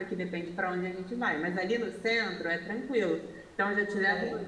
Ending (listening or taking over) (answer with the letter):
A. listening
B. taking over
A